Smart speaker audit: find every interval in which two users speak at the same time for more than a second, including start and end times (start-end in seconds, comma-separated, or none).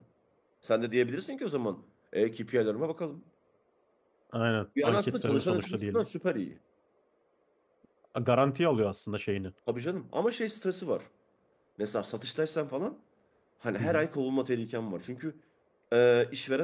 4.8-6.1